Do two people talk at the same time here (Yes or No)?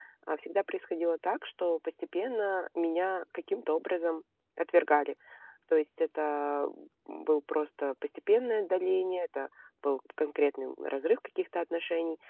No